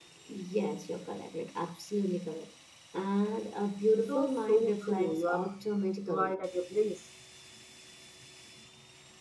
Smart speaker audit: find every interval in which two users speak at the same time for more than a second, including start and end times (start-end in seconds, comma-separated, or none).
4.1-5.5